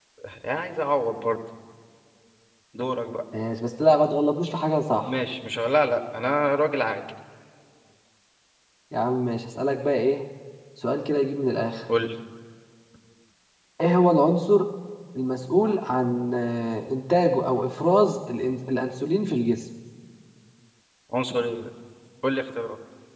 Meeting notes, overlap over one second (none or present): none